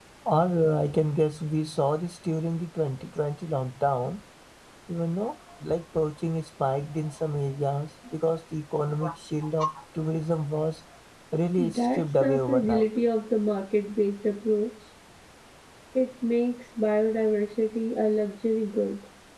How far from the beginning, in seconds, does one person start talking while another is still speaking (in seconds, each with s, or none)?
11.6 s